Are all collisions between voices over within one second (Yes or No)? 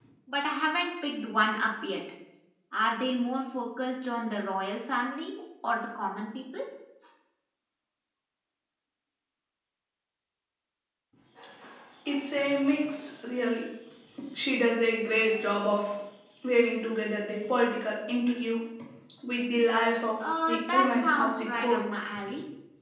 No